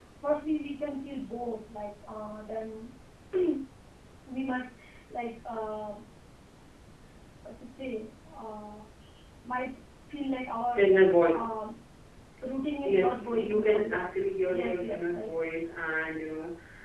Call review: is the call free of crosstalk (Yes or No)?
No